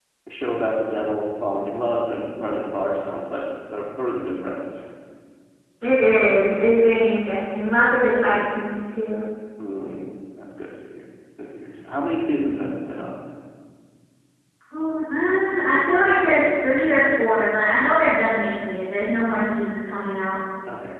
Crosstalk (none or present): none